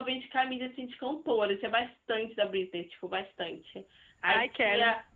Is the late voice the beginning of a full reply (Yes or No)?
No